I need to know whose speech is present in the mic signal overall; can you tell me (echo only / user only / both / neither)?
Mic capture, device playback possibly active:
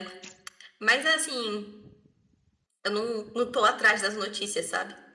echo only